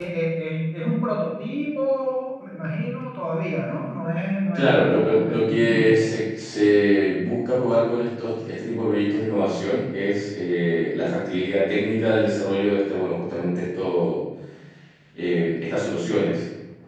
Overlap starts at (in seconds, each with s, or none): 4.5 s